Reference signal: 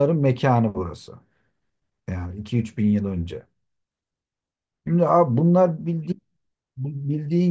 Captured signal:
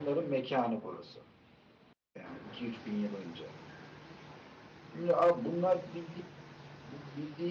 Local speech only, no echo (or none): none